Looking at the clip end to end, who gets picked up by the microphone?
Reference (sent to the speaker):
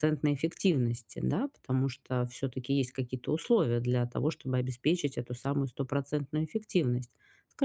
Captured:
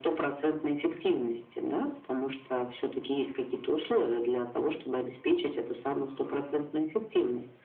echo only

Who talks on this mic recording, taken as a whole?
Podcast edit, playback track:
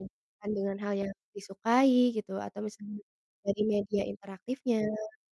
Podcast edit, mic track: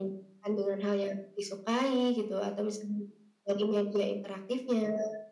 echo only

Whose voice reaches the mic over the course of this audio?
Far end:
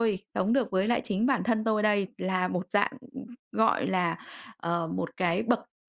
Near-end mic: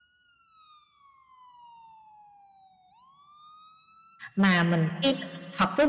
user only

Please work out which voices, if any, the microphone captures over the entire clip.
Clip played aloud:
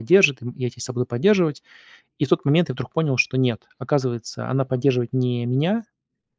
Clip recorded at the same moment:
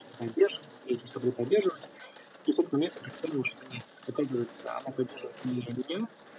echo only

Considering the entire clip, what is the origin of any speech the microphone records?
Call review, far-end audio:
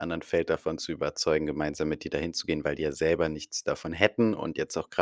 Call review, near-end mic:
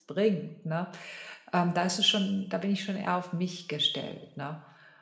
user only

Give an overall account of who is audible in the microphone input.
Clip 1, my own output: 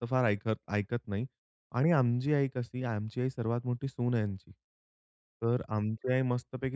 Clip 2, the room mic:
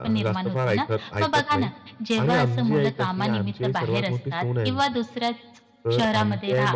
both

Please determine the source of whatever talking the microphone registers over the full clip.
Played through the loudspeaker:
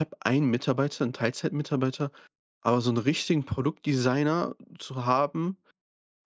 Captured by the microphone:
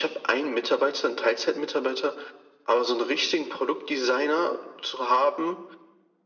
echo only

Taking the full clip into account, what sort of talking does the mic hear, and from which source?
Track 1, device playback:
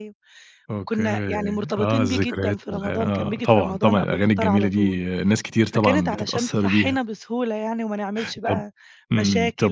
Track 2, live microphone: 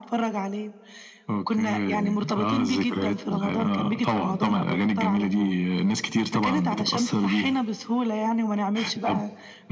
echo only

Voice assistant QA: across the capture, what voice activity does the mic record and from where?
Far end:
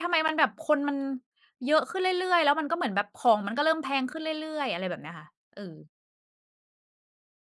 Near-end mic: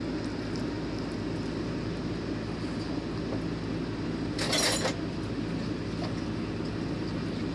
neither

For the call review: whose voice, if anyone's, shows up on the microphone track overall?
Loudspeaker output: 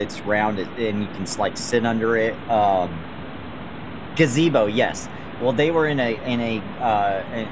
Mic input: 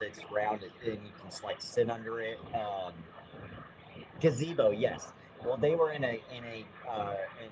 echo only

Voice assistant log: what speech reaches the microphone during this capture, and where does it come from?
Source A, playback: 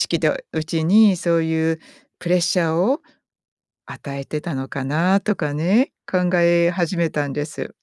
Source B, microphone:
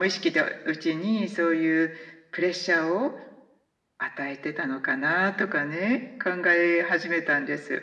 echo only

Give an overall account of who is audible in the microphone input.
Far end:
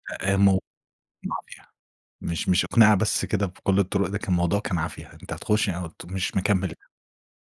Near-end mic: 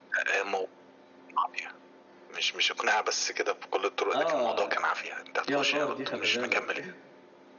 both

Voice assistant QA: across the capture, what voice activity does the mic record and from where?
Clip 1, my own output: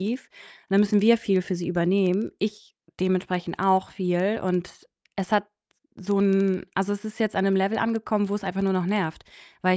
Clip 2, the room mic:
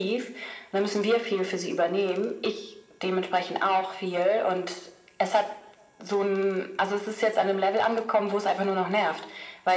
echo only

